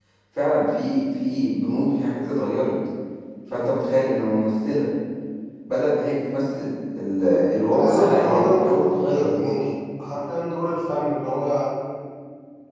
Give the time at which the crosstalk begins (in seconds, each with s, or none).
7.7 s